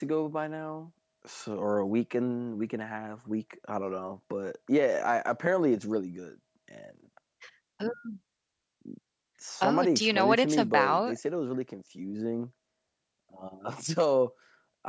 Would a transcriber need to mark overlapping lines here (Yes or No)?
Yes